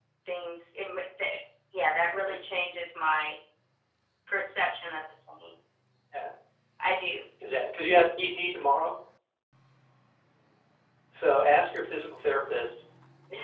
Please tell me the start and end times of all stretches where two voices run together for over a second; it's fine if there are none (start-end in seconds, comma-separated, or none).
none